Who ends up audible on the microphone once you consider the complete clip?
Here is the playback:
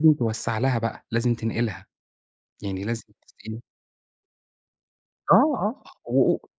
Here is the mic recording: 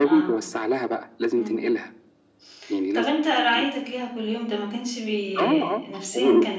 both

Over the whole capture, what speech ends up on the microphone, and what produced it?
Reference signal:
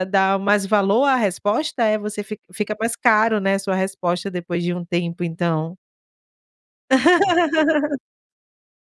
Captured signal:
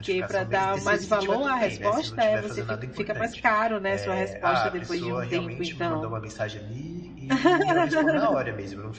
both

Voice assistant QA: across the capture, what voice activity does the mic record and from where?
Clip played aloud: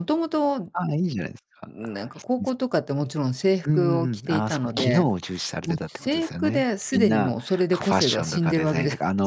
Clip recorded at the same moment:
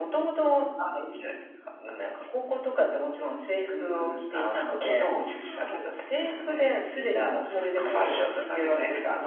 both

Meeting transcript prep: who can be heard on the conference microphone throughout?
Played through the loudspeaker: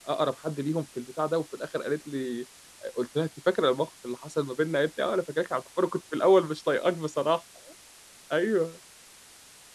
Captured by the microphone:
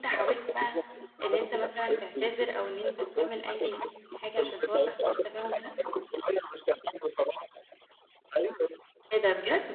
both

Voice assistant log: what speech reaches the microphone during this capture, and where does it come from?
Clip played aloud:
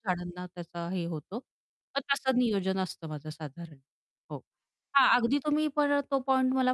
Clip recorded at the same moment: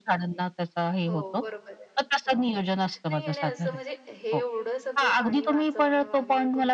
both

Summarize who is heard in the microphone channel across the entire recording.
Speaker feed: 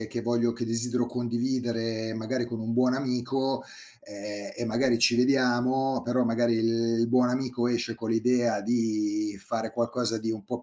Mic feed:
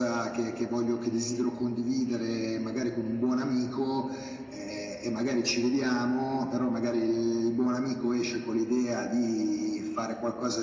echo only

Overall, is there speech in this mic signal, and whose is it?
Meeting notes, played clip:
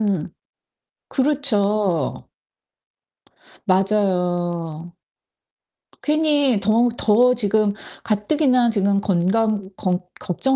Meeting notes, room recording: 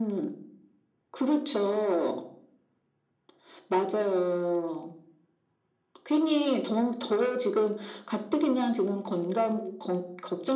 echo only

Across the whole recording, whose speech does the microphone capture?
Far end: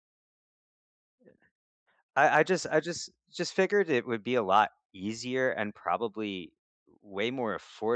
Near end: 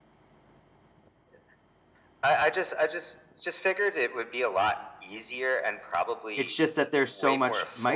both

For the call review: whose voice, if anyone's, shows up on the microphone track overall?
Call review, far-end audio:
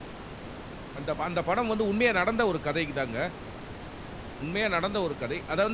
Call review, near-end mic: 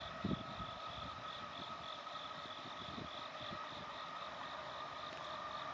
neither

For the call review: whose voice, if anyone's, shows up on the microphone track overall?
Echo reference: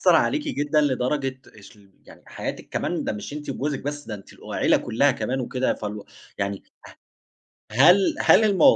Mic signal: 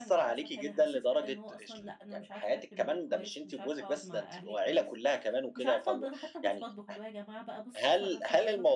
both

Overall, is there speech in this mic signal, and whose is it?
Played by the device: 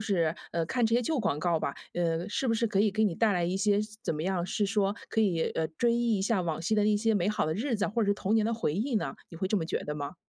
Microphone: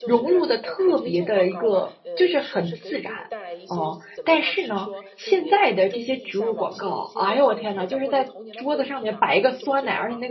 both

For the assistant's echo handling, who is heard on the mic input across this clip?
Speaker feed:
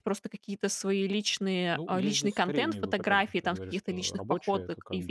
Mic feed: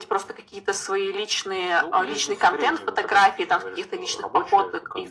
echo only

